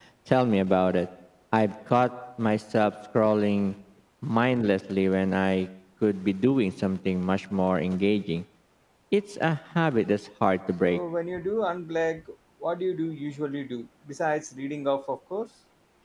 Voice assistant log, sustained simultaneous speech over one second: none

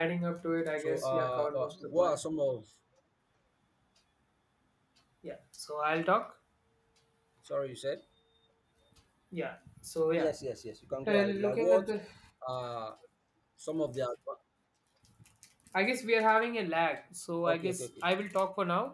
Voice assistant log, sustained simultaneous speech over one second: present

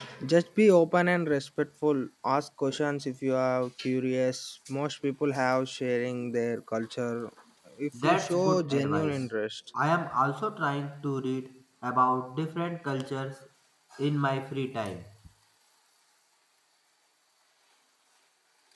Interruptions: present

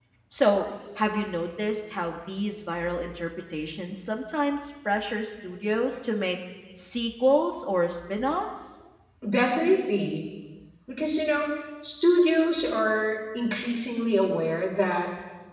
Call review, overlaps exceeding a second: none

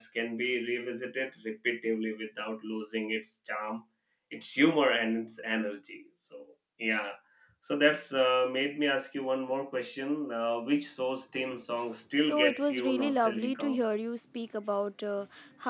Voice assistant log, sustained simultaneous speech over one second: present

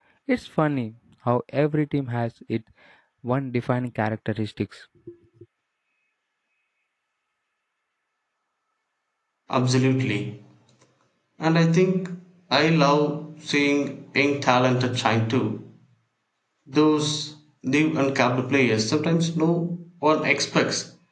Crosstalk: none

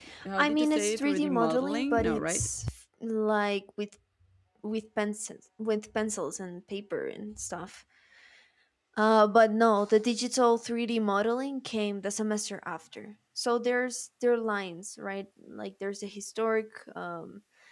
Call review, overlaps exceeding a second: present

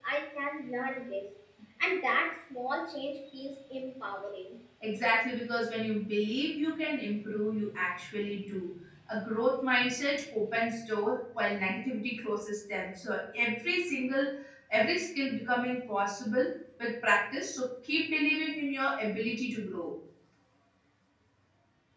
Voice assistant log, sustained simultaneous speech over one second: none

